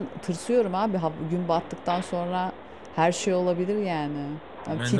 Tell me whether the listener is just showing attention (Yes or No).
No